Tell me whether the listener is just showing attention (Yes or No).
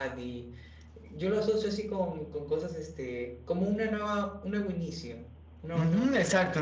No